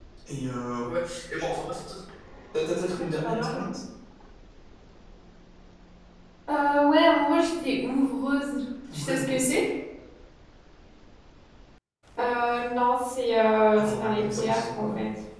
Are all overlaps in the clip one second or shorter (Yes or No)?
No